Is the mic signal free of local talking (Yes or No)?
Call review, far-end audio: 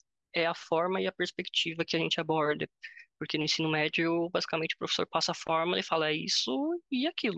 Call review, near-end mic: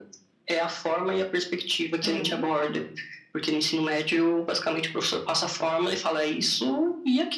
No